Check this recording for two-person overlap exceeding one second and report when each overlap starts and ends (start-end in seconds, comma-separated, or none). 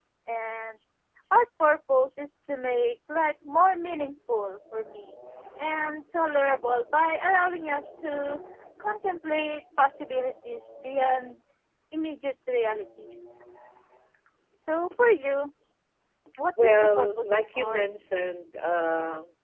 16.6-17.8